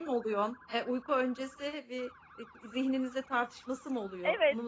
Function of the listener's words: taking over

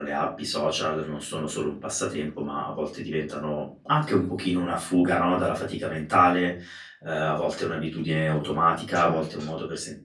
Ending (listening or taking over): listening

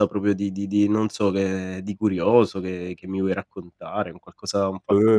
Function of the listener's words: taking over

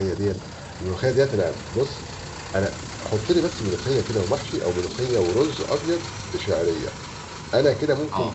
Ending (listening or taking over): listening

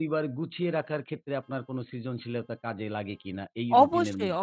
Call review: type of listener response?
taking over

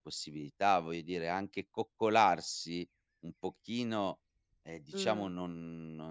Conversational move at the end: listening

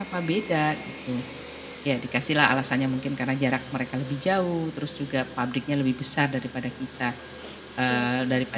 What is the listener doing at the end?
listening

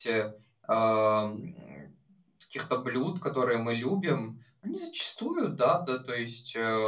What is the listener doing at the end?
listening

